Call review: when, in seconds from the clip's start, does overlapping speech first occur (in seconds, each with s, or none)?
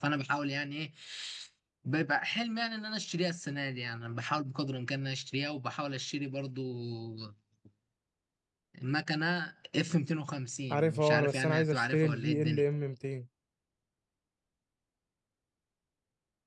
10.7 s